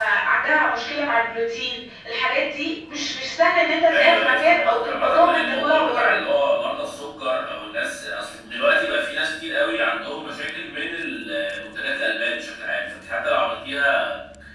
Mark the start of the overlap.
3.9 s

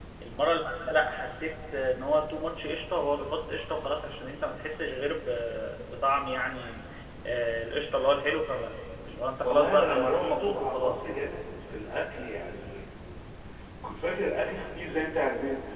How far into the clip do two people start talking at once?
9.4 s

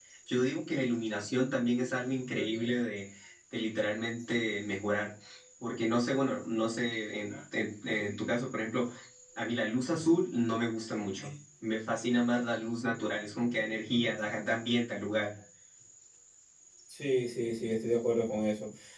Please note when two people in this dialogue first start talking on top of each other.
none

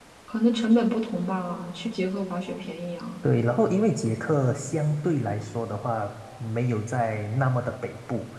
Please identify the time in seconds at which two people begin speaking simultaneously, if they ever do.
none

